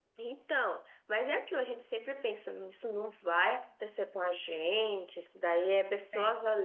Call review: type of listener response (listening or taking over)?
listening